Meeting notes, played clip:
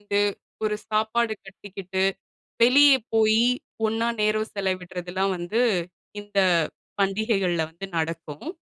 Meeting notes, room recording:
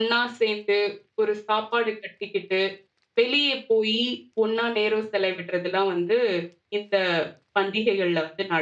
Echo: present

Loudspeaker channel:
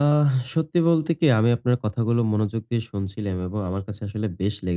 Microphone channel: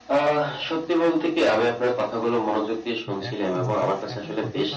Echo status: present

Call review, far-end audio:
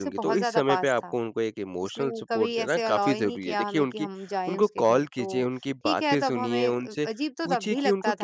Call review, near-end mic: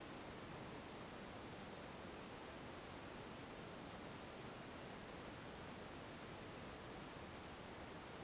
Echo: none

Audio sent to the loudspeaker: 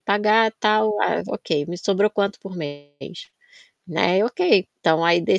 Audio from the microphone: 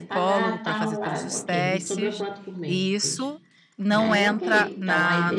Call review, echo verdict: present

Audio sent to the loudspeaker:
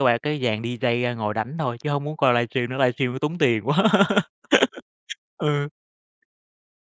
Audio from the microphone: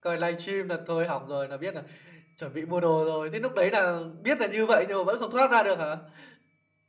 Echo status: none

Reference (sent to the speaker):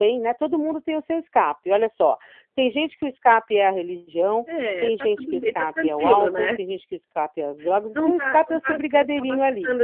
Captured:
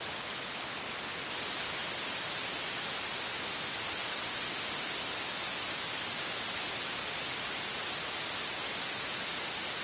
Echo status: none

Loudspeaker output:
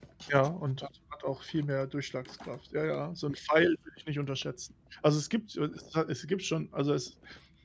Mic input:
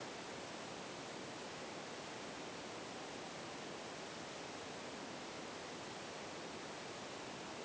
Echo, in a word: none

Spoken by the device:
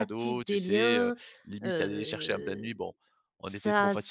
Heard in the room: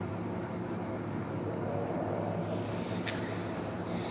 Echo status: none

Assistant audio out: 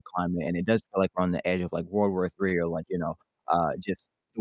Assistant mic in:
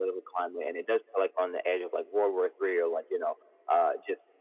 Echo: present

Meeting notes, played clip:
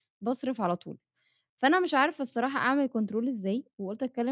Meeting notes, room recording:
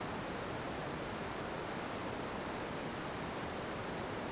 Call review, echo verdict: none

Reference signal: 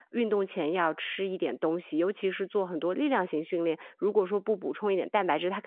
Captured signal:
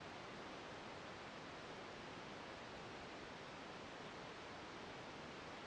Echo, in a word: none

